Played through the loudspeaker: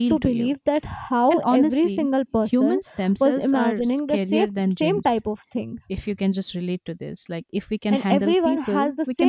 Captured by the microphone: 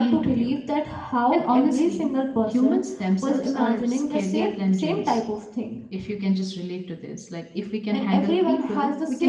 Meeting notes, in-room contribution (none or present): none